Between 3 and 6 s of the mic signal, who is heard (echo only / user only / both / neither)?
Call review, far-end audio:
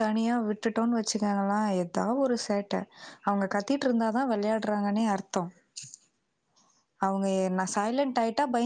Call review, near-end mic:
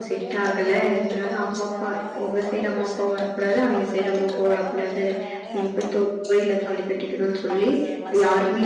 both